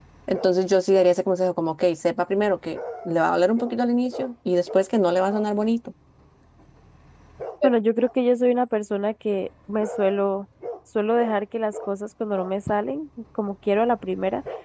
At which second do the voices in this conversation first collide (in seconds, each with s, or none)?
none